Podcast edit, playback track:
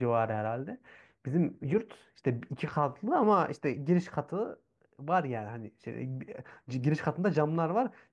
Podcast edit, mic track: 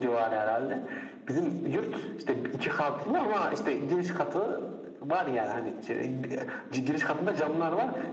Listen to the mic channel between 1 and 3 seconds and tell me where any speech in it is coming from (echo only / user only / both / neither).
echo only